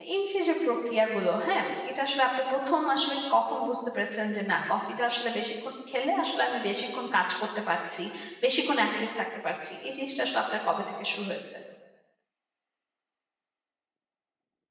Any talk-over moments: No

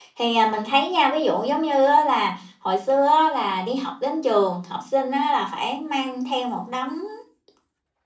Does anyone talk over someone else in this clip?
No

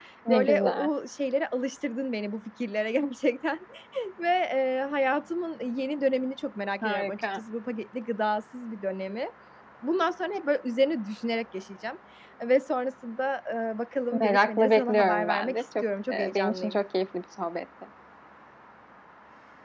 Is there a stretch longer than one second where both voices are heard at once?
Yes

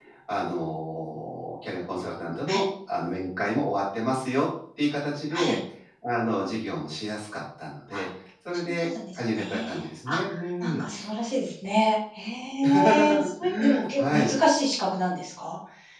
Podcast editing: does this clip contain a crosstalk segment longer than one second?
Yes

